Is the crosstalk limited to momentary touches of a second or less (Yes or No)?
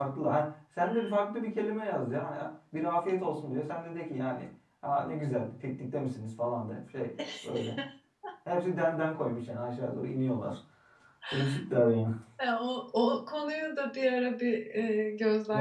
Yes